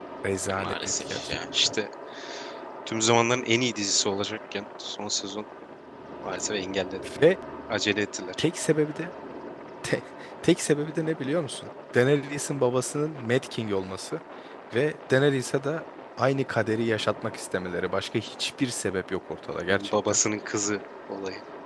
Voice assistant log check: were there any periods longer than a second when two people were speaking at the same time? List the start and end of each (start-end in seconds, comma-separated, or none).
0.5-1.7